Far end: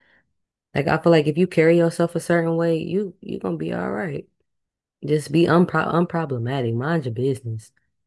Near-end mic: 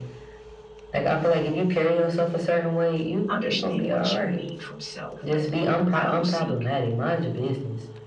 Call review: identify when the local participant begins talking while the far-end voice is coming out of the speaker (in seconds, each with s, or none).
3.3 s